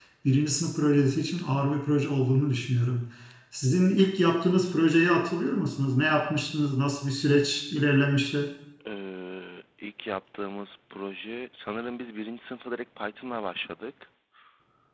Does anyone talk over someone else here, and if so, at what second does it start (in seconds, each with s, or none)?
none